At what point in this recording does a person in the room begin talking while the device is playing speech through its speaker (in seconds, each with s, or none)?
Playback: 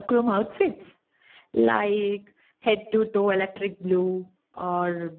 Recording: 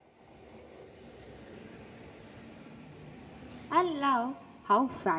3.7 s